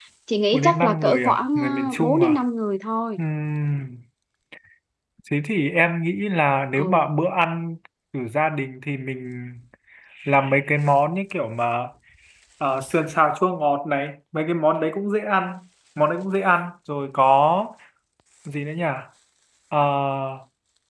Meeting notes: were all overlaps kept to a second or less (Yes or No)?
No